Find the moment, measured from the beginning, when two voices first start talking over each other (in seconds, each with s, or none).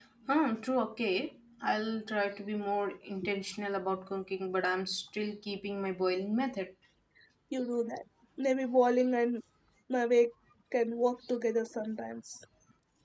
none